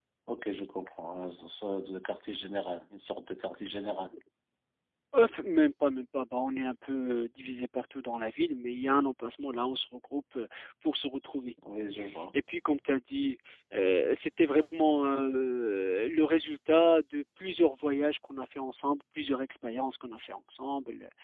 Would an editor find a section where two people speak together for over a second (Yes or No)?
No